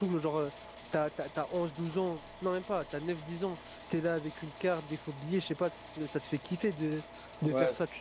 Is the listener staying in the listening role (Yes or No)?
Yes